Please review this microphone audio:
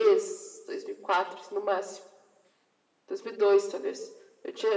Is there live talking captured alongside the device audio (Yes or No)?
No